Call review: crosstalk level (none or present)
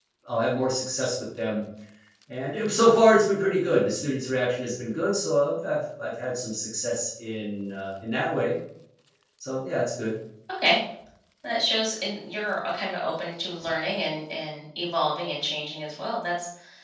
none